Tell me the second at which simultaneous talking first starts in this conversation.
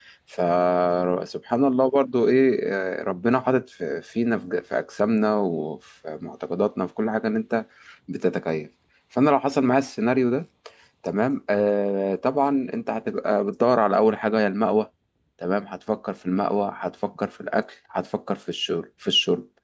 none

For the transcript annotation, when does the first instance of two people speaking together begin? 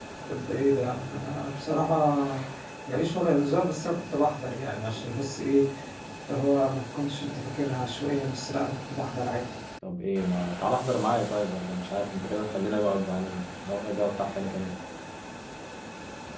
none

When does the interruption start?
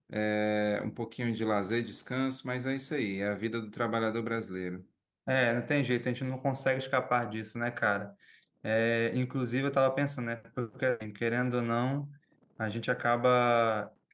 none

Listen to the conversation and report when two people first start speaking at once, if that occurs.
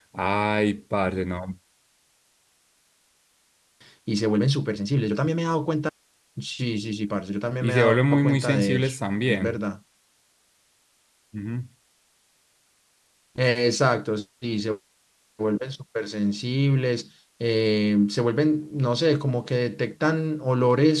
7.6 s

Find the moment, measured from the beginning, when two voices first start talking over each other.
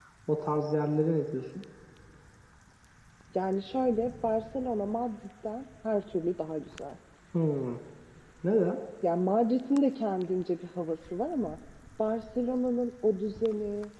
none

